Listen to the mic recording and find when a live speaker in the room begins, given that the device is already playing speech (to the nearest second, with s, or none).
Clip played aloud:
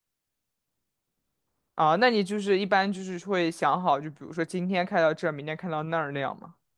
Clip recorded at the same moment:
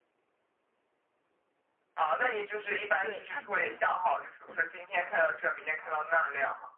3 s